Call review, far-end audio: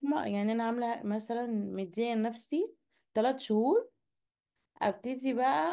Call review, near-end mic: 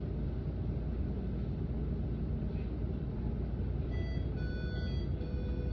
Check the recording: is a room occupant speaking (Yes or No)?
No